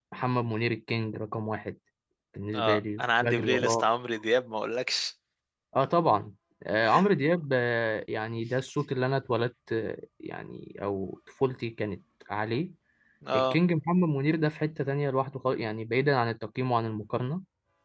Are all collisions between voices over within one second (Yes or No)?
No